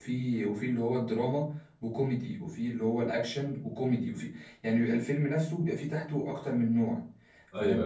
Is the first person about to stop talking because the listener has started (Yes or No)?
No